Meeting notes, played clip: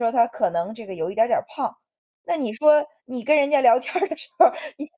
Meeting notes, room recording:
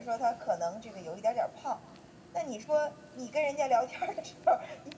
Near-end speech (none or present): none